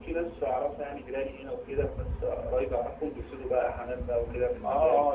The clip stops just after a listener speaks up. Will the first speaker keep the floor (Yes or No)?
No